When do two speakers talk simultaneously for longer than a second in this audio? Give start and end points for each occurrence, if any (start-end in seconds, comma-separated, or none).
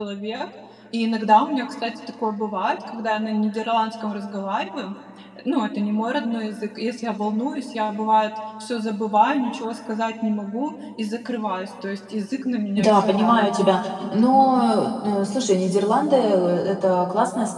12.8-14.6